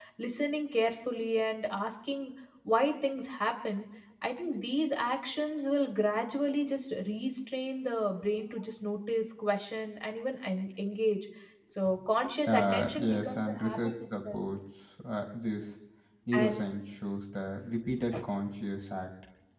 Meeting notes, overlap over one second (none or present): present